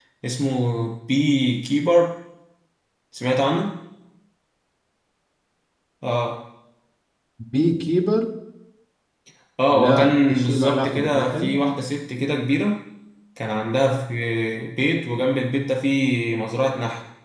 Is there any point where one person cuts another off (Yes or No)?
Yes